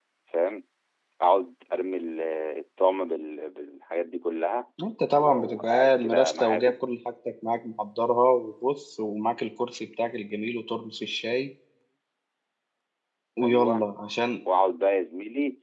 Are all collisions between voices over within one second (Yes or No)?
No